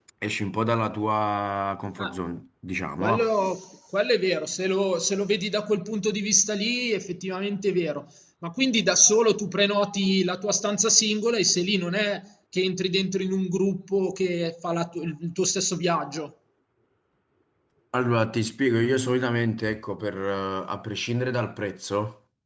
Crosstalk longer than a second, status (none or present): none